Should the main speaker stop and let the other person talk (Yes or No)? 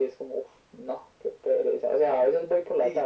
Yes